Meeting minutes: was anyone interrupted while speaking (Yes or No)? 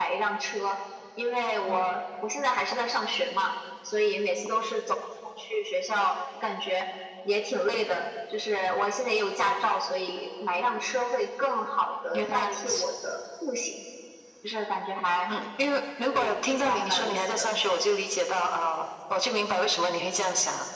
Yes